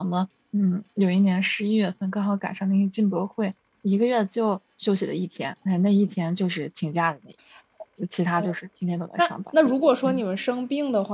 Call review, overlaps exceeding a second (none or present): none